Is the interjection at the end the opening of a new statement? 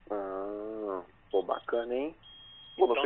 Yes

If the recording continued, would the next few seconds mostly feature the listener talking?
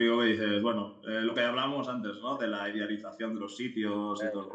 No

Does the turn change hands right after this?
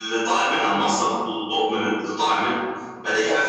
No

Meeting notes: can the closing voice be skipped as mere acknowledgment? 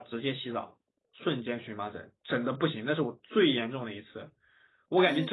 Yes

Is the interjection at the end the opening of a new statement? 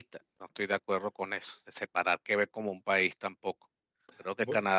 No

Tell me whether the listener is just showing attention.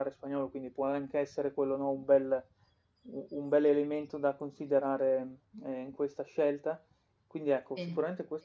Yes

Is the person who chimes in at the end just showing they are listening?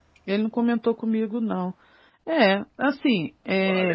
No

